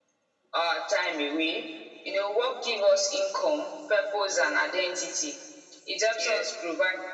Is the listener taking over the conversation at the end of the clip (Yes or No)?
No